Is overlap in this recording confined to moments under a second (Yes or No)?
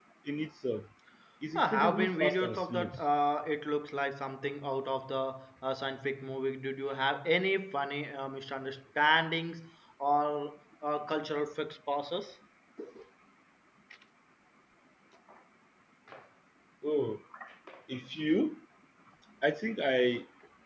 No